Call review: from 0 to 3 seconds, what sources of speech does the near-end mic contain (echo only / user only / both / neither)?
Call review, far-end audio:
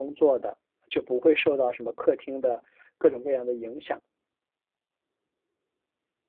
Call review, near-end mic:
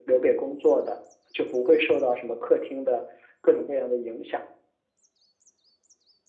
echo only